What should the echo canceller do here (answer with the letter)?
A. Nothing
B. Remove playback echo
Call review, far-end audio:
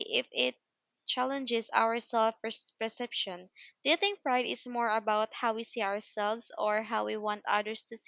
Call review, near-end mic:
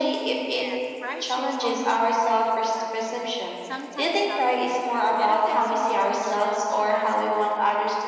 B